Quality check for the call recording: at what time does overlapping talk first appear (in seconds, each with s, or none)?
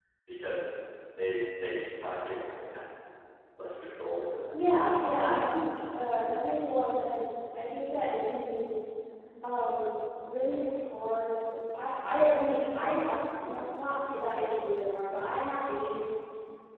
none